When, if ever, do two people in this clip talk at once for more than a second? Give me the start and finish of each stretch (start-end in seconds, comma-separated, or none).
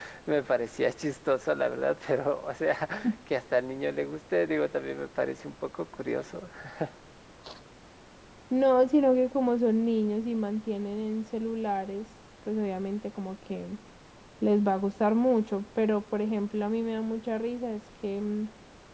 none